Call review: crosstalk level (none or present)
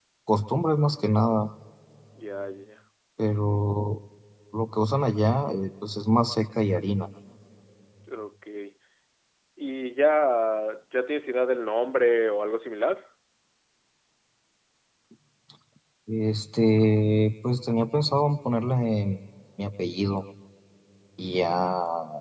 none